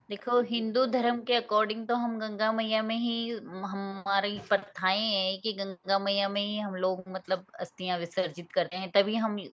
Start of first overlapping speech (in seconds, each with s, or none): none